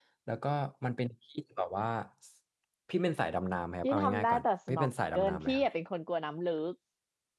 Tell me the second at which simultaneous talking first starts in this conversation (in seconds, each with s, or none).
3.8 s